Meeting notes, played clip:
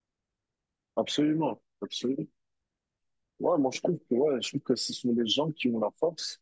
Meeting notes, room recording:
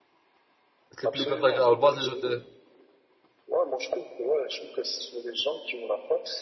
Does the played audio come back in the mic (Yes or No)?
Yes